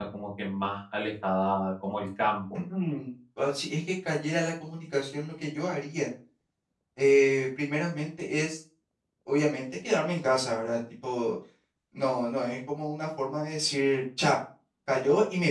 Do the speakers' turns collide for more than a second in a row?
No

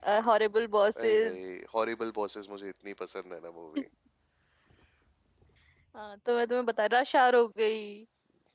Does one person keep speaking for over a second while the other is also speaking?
No

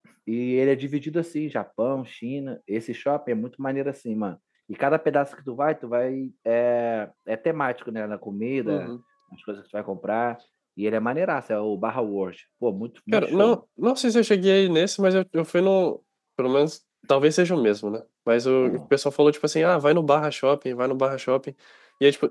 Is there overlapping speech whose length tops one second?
No

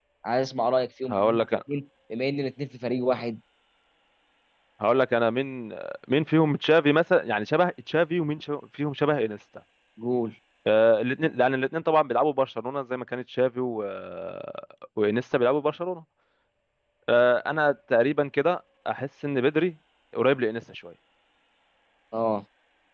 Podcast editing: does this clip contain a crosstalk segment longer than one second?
No

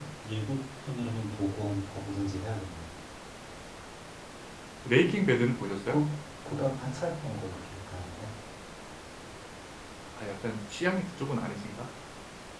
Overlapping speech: No

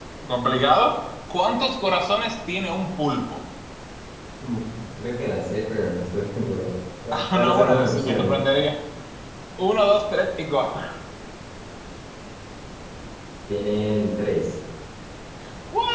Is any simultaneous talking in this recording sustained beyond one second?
Yes, from 7.1 s

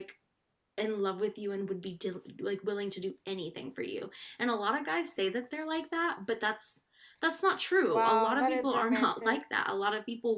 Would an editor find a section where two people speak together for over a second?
Yes, from 7.9 s

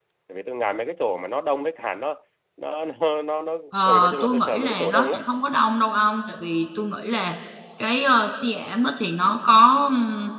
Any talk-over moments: Yes, from 3.7 s

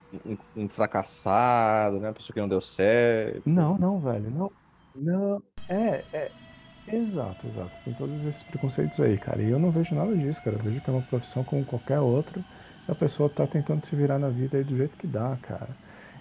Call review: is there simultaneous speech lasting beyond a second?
No

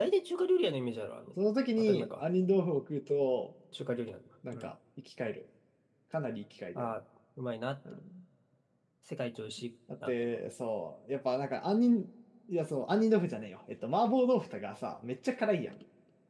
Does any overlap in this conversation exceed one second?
No

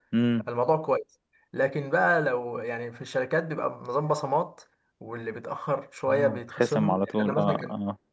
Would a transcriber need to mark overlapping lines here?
Yes, from 6.1 s

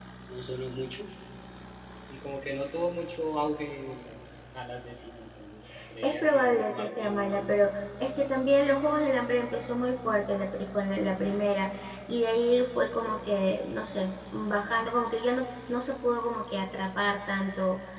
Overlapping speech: Yes, from 6.0 s

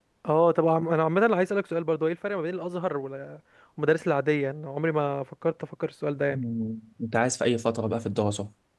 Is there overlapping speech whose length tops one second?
No

